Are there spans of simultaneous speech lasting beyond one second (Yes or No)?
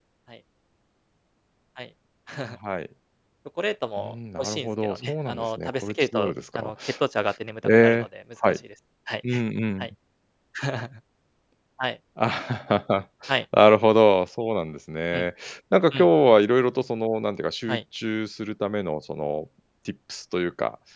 Yes